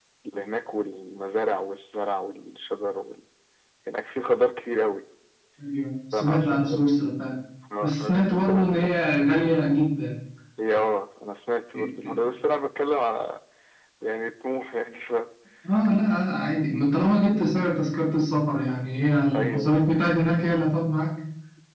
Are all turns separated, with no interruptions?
No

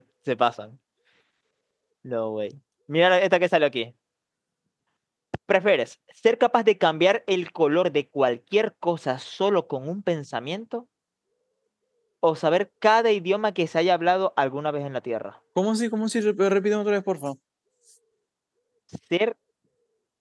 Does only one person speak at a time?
Yes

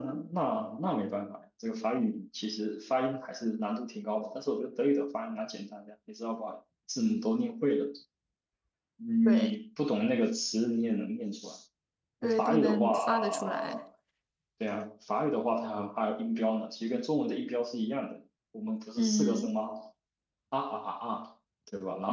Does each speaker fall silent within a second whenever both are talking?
No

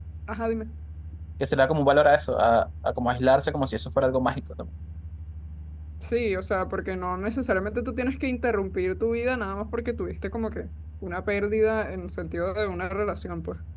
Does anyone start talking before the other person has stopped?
No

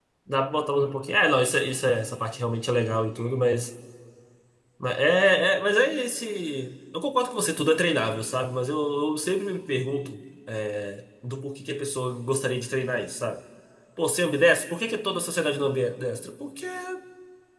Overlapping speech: No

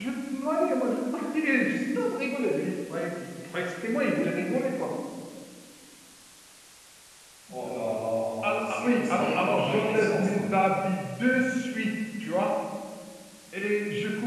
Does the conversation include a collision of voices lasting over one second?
Yes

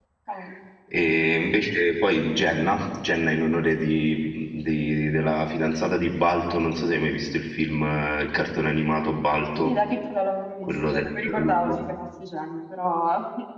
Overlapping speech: Yes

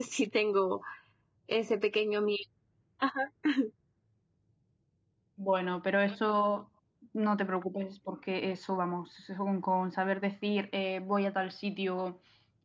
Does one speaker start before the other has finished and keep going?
No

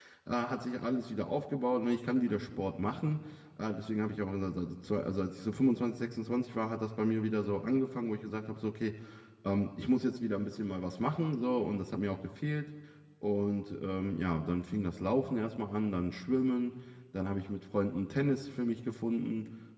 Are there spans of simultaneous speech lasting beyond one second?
No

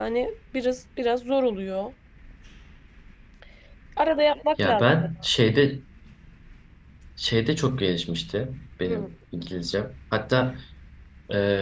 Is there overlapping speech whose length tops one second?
No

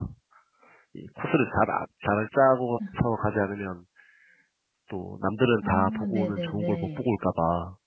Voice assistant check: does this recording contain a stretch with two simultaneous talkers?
Yes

